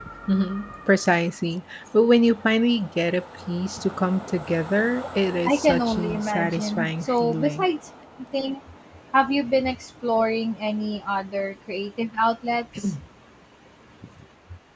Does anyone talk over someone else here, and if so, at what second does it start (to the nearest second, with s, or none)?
5 s